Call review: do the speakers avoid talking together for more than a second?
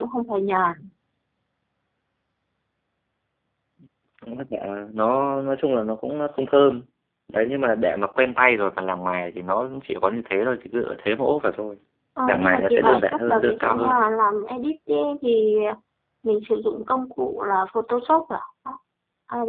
No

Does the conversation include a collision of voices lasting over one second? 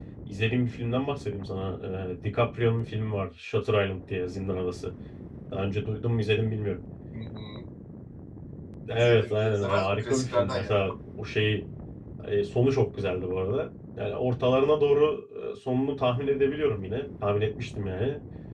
Yes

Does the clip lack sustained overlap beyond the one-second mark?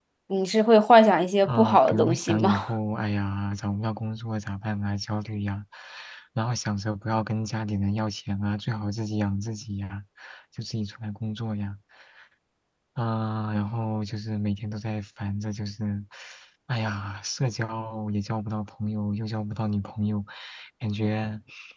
No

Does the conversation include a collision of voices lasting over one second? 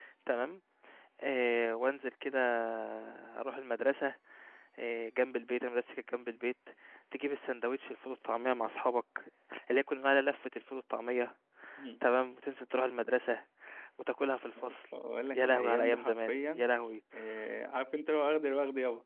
Yes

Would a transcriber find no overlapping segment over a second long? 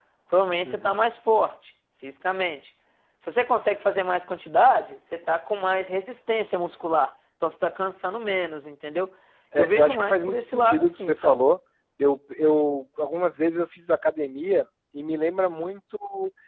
No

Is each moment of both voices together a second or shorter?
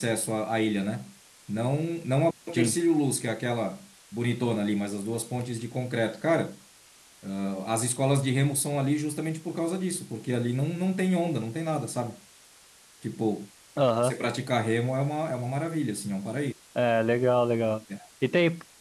Yes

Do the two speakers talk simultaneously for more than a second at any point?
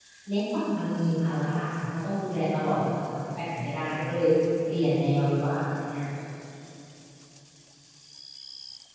No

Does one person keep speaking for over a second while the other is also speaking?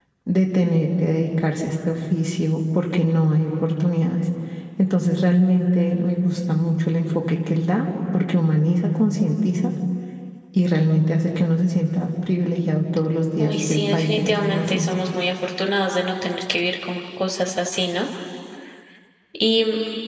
Yes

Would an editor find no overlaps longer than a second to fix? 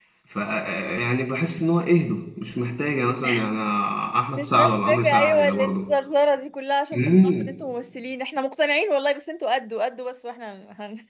No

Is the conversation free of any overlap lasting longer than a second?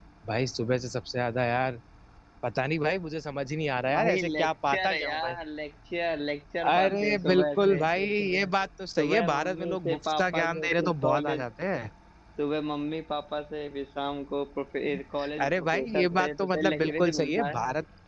No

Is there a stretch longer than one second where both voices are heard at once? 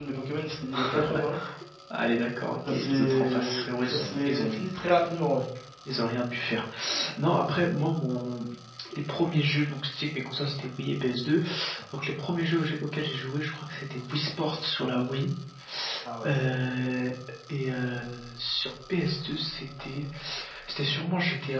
Yes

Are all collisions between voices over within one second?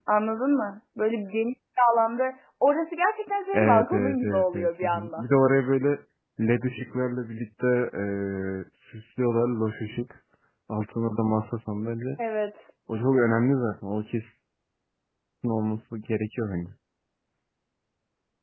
No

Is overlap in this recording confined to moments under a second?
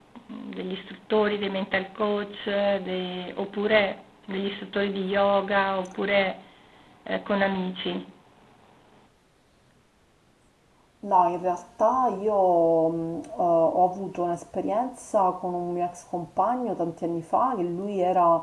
Yes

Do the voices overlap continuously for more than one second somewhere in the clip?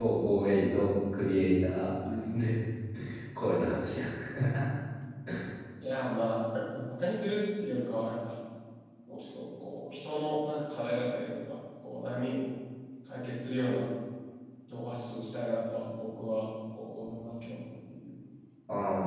No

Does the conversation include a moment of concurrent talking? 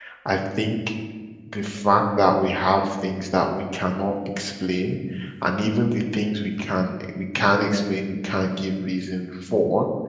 No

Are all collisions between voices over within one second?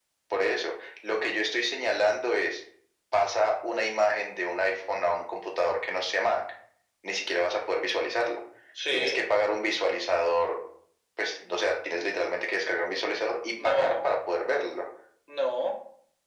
Yes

